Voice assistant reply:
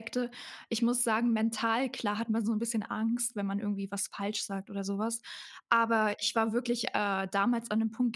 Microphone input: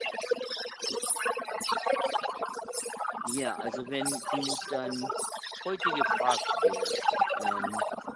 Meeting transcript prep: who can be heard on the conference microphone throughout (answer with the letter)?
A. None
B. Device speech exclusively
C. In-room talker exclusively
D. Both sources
D